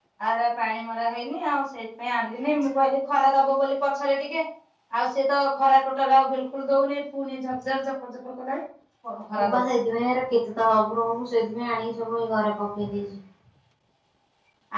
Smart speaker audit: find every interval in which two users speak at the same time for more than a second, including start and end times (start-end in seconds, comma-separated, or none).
none